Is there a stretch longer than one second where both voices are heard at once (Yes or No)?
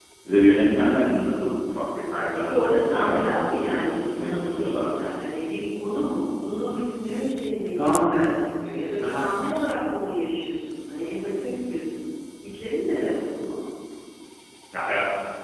Yes